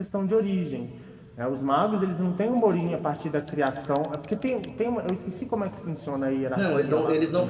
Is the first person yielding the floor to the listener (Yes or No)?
Yes